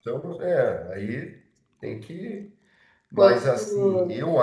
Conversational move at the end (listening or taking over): listening